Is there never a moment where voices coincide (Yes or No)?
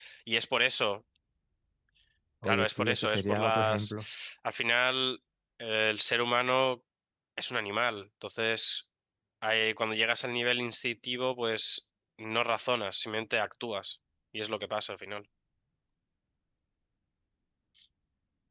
No